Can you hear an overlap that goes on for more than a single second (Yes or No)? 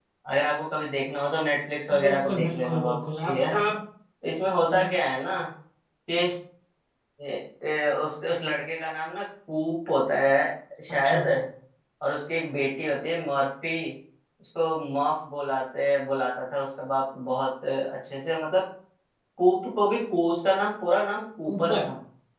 Yes